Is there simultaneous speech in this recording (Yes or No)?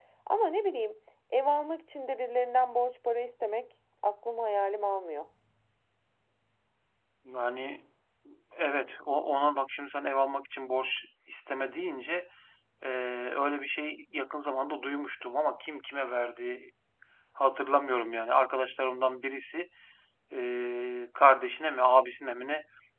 No